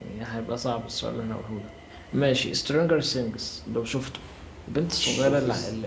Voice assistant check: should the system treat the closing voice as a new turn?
No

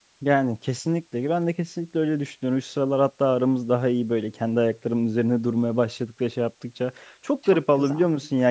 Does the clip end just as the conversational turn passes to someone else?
No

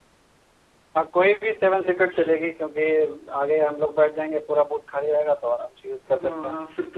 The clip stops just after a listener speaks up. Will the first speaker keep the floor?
No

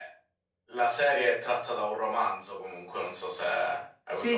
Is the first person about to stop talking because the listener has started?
Yes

